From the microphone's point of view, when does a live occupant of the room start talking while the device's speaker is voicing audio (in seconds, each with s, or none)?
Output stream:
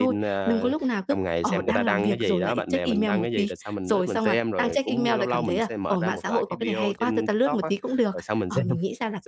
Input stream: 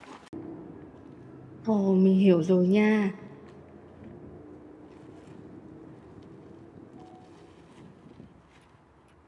1.6 s